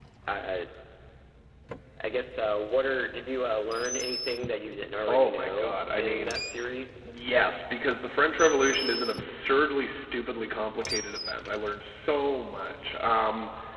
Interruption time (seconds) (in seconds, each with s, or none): 5.1 s